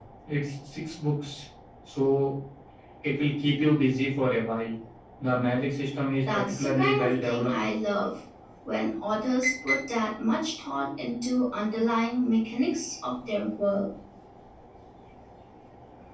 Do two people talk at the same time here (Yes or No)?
Yes